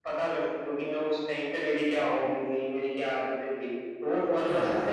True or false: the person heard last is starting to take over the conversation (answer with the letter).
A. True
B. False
A